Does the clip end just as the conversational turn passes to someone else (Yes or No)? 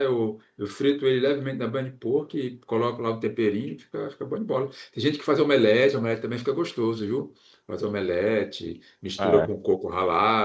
No